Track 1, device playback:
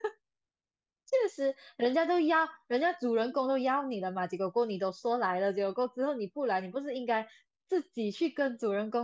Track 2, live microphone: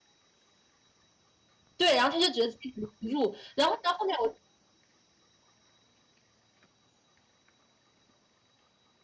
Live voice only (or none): 对，然后他就觉得自己很融入，然后呢，后面我